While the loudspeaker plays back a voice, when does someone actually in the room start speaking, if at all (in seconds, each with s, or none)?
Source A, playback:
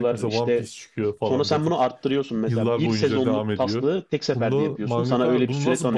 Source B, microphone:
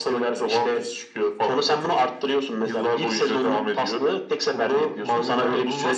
none